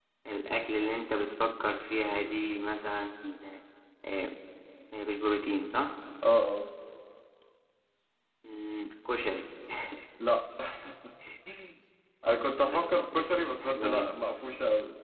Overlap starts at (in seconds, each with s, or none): 12.6 s